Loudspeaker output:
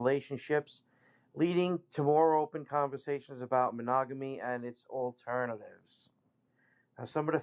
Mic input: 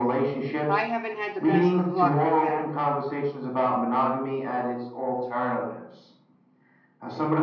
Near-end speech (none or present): present